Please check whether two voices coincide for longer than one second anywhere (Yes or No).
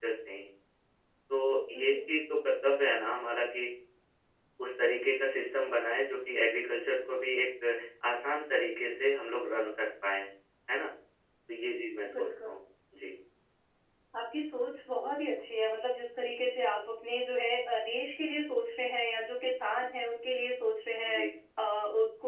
No